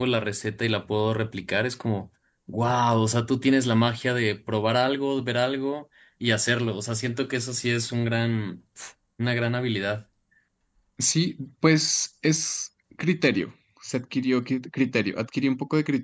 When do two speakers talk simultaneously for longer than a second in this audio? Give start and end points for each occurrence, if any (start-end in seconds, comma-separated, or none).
none